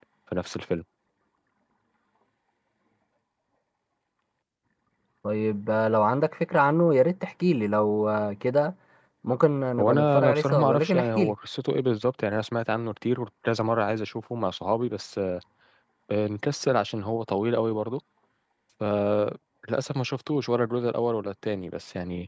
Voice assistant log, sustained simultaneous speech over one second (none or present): present